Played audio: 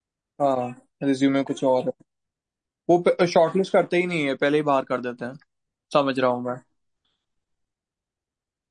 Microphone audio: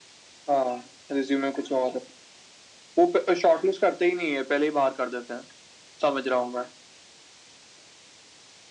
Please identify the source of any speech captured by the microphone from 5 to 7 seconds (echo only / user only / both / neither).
echo only